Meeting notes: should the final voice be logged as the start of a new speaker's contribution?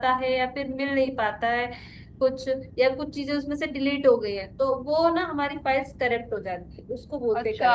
Yes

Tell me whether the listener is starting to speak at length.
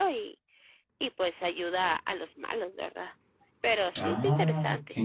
Yes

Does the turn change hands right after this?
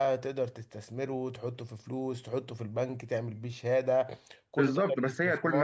Yes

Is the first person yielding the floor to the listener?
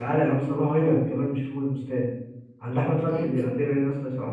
No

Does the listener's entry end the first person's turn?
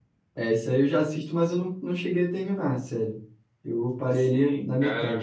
Yes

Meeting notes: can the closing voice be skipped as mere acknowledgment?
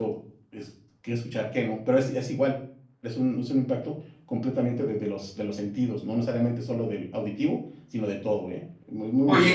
No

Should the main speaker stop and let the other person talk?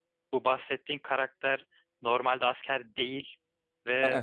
No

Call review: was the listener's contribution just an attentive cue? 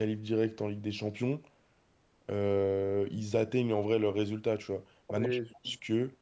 Yes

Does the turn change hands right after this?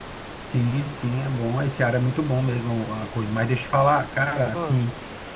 No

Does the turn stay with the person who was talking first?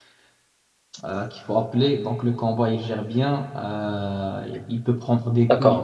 No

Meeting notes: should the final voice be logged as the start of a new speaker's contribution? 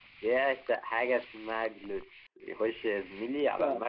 No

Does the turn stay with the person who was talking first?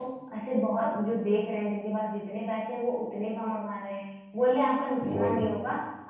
Yes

